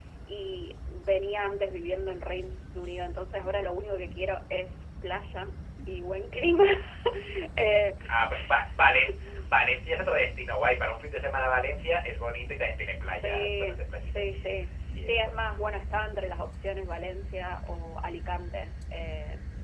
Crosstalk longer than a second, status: present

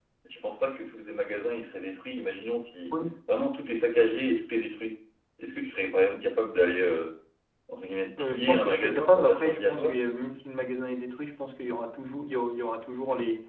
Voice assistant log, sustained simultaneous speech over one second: present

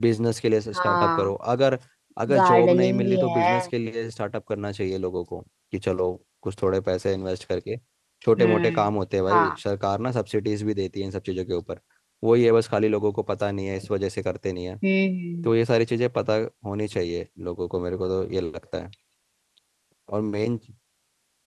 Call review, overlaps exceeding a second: present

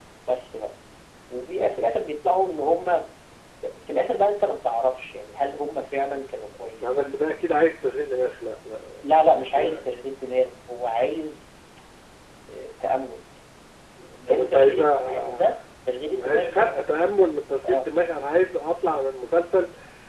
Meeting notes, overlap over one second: present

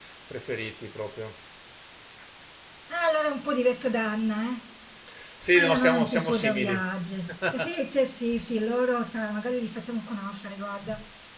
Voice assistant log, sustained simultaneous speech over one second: present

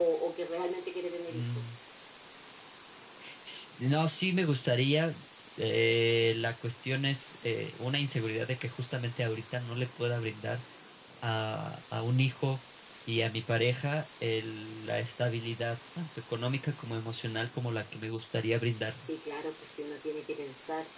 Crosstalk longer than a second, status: none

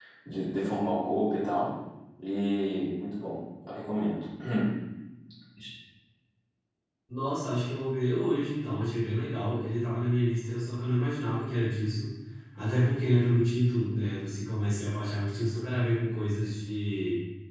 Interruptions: none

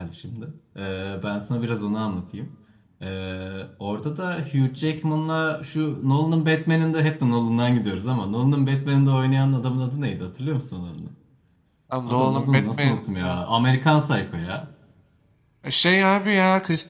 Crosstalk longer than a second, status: present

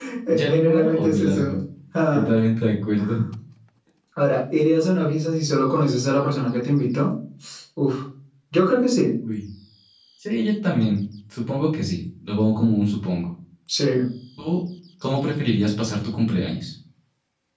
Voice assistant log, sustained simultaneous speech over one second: present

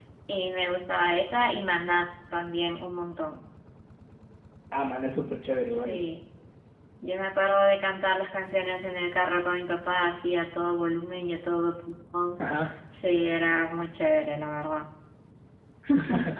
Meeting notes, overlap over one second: none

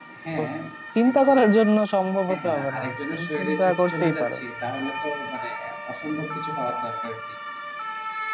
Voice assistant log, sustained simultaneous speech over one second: present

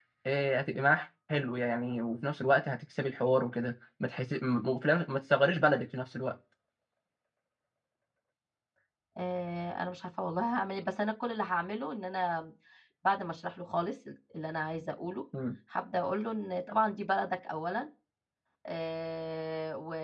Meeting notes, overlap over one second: none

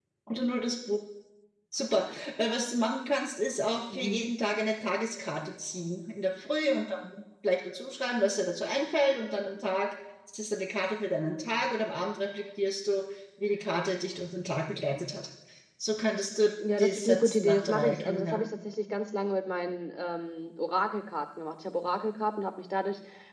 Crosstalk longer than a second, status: present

